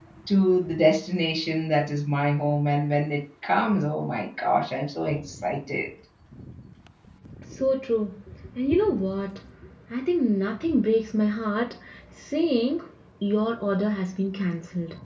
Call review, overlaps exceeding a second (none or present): none